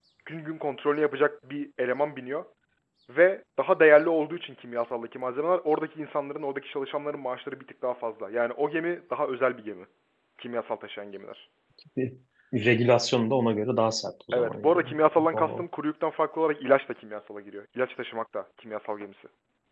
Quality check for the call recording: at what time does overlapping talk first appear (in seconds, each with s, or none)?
14.3 s